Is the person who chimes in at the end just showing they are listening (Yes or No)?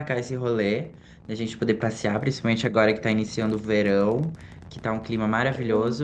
Yes